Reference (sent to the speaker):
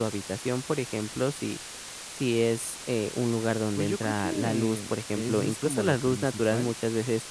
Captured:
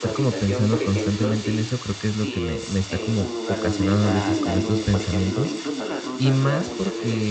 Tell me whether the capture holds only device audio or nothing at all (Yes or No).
No